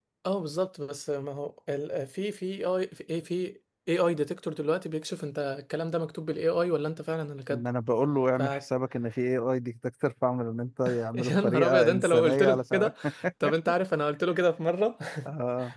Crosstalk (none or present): present